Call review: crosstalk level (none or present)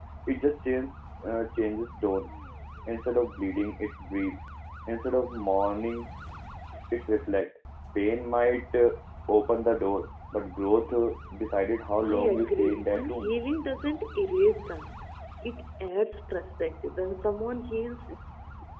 present